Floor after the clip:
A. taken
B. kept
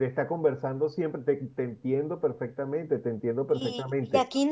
A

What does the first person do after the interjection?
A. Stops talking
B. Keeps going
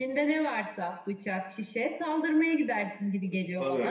A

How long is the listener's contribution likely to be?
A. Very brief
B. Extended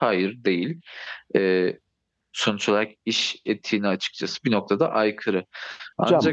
B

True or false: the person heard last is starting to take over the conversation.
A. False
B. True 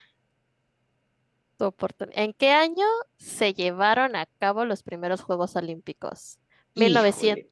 A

